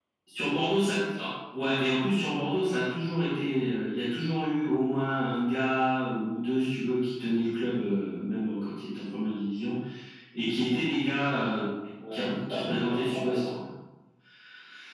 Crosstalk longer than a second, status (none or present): present